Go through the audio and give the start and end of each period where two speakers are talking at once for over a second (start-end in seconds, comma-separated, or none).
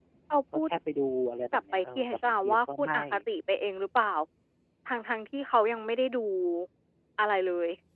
1.5-3.0